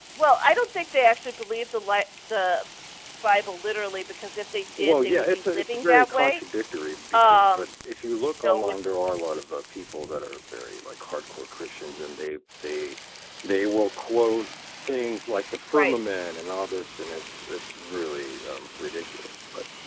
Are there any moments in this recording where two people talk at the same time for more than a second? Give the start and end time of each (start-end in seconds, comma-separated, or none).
4.8-6.4